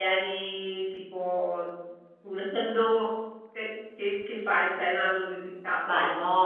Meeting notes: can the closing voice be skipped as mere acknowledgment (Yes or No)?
No